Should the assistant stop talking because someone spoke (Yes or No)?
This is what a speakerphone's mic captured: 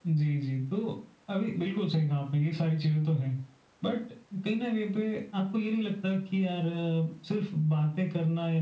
No